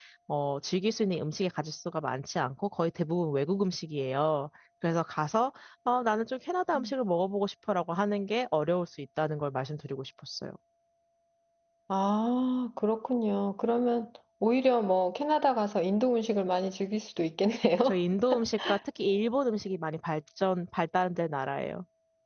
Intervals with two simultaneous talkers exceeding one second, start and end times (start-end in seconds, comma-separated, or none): none